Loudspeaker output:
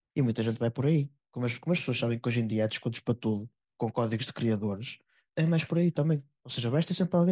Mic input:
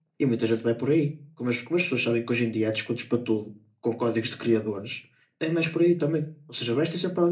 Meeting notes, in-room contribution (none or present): none